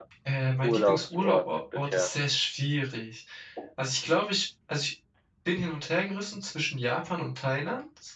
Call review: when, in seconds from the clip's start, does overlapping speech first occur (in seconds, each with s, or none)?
0.6 s